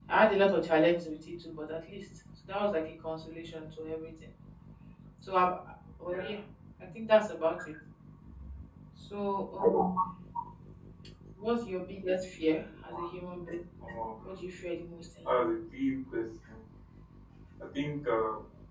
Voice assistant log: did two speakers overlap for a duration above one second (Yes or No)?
No